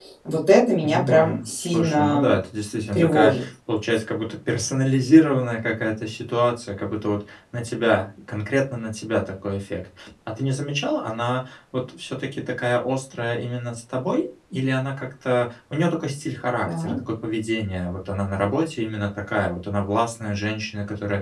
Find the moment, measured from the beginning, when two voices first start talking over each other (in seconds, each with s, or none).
0.8 s